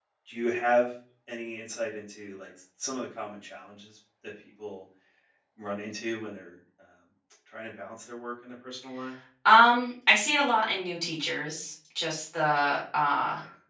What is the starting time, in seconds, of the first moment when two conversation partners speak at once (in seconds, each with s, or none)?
none